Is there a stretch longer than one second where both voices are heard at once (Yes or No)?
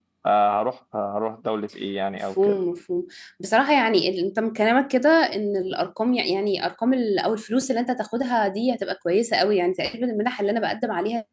No